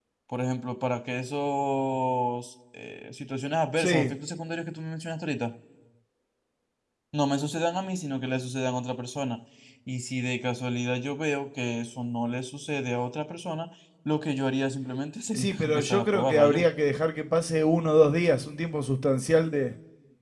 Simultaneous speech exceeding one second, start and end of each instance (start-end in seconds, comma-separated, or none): 15.3-16.6